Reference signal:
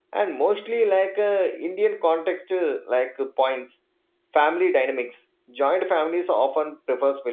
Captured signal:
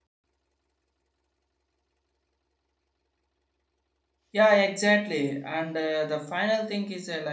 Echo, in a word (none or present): none